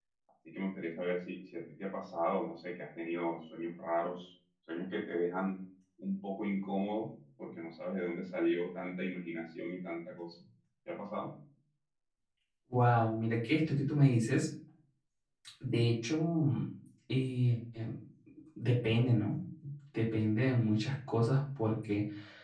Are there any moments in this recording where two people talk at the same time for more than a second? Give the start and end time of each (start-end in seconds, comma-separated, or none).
none